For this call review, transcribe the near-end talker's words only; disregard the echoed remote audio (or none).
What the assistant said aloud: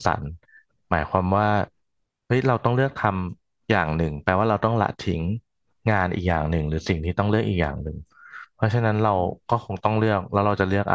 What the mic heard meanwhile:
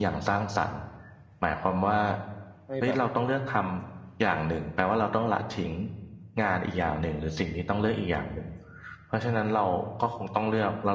ให้แบบ